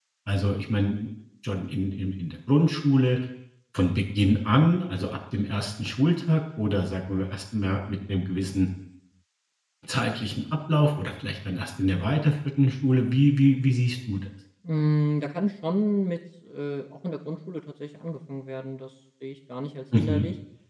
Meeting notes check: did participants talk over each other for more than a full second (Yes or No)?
No